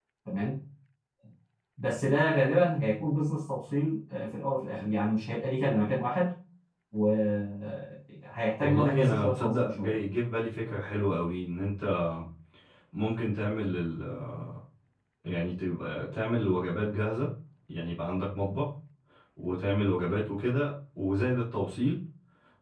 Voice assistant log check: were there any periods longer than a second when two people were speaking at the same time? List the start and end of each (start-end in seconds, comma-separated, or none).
8.6-9.9